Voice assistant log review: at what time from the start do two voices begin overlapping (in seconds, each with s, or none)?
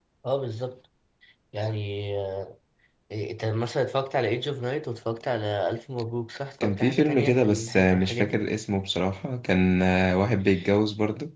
6.6 s